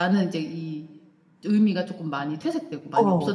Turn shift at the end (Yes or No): Yes